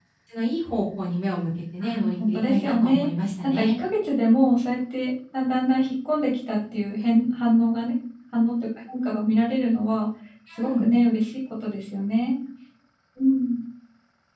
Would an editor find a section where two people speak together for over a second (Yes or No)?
Yes